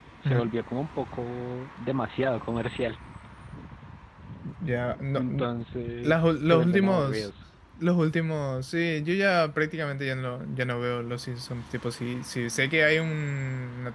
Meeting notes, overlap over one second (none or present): present